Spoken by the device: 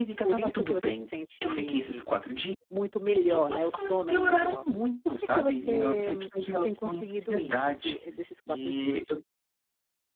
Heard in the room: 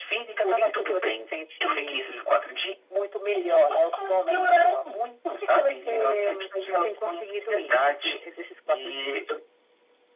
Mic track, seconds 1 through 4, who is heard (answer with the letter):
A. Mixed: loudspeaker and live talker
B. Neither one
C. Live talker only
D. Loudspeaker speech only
D